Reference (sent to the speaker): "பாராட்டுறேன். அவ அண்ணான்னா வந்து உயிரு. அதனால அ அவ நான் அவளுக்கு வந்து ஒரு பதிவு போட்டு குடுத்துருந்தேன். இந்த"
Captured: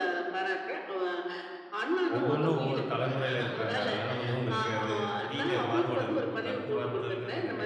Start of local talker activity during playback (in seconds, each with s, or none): 2.1 s